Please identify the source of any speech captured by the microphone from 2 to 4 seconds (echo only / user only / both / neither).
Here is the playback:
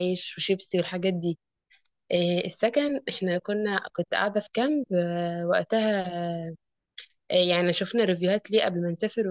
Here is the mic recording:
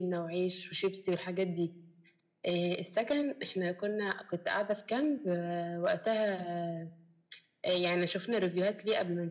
echo only